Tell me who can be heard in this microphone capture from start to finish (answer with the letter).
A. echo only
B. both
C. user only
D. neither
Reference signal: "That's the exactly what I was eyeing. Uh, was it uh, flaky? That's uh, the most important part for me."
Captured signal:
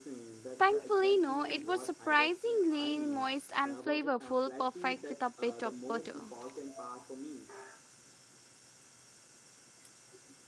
B